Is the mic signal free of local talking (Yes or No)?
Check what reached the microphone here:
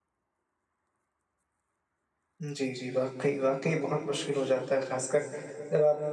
No